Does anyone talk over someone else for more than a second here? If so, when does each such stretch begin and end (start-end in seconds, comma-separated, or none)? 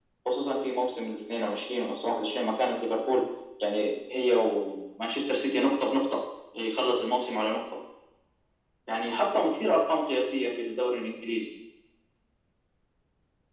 none